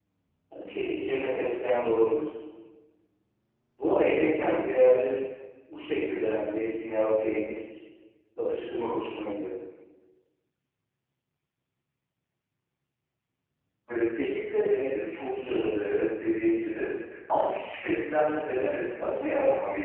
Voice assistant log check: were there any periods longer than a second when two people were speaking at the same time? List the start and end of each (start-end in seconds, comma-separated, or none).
none